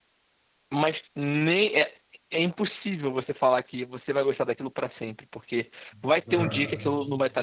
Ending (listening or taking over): listening